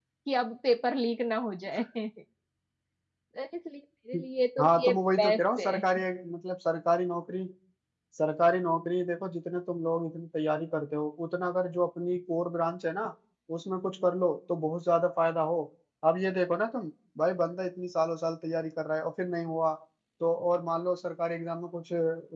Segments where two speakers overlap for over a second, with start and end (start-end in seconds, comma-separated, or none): 4.6-5.8